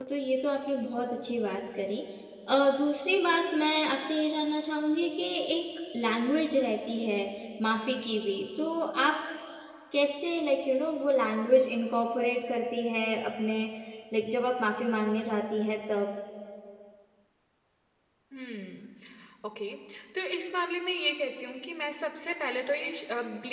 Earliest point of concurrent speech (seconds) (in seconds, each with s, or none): none